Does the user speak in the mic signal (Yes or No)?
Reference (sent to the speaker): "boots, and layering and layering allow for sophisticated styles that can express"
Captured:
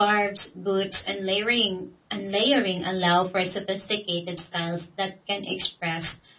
No